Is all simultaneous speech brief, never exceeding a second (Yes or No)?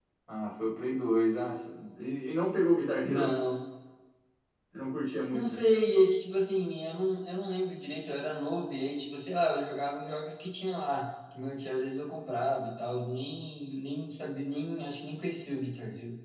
Yes